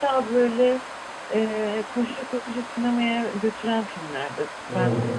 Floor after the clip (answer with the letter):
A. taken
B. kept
B